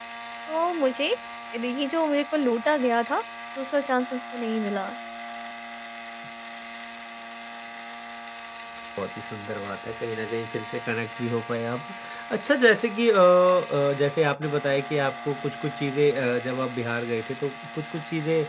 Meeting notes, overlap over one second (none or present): none